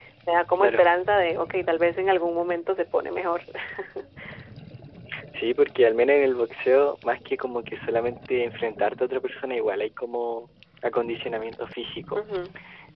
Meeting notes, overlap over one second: none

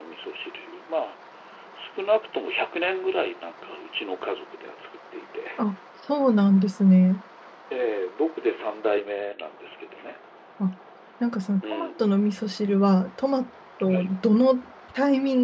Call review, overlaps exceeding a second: none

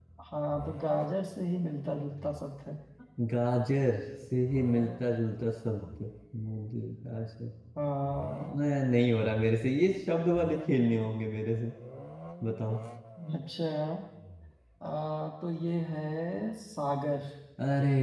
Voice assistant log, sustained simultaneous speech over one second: none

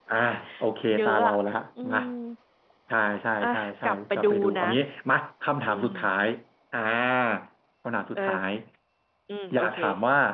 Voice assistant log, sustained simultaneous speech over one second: present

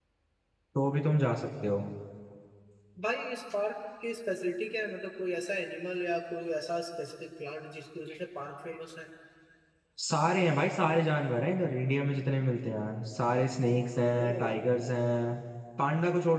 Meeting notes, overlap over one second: none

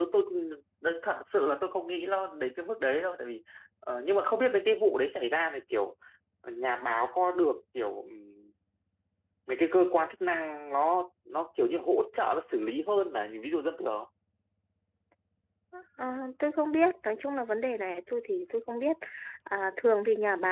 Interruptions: none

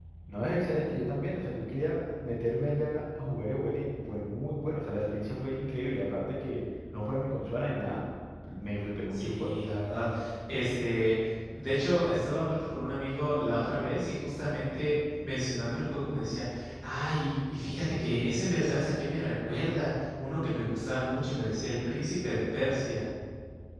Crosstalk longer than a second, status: none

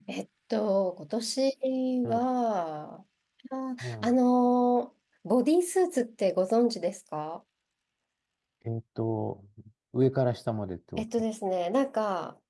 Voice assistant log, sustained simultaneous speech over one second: none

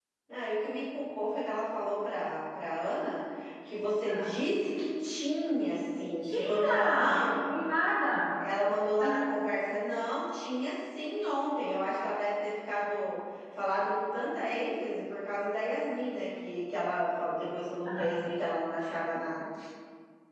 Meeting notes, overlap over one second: present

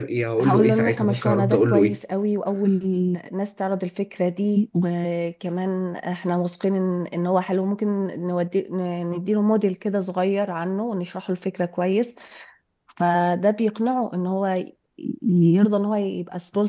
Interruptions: present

